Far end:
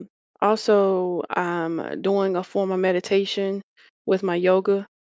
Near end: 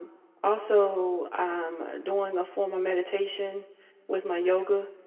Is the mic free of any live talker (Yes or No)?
Yes